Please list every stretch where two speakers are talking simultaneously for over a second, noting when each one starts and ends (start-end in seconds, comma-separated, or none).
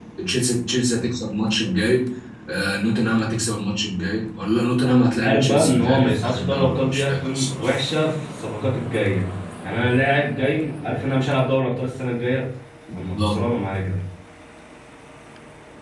5.2-7.8